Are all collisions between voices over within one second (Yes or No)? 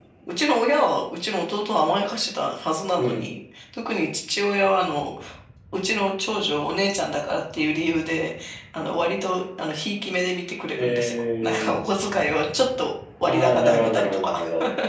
No